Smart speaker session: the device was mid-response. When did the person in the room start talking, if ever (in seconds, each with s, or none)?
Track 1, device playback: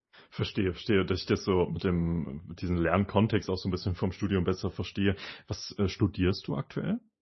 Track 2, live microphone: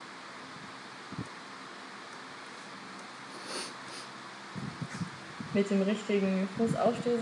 5.5 s